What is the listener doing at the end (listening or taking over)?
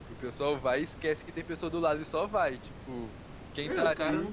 taking over